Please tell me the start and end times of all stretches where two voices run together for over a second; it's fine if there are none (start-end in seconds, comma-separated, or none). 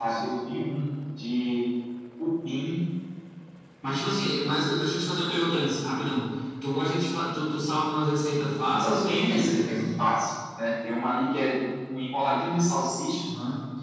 8.7-10.0